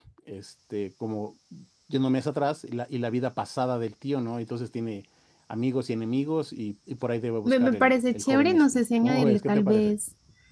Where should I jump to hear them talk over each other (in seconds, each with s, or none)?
7.4 s